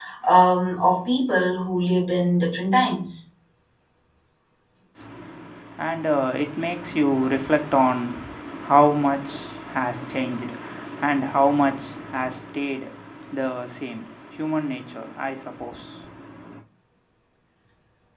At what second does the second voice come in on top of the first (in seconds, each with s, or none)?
none